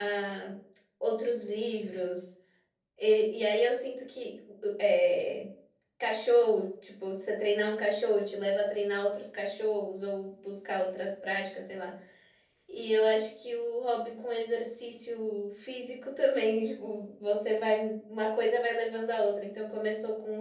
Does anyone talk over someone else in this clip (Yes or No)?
No